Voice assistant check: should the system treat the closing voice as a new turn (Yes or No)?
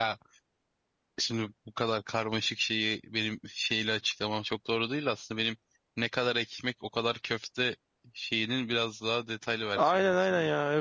Yes